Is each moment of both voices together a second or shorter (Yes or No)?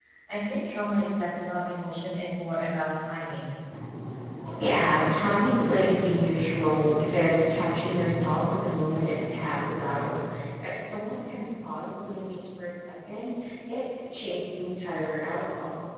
Yes